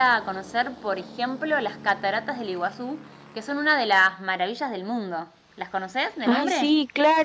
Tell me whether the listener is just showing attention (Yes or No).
No